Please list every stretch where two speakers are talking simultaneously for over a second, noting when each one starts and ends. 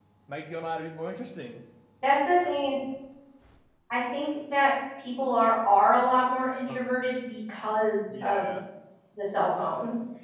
none

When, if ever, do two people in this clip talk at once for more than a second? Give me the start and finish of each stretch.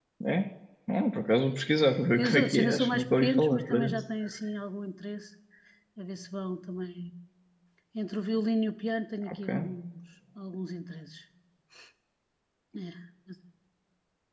2.2-4.0

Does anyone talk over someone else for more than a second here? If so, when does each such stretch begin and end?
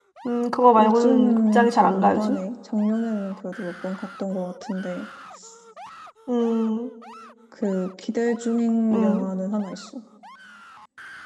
0.8-2.4

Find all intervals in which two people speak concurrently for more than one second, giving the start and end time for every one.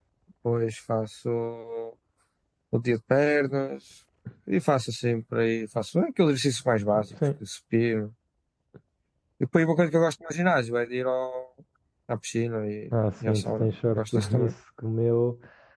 13.3-14.5

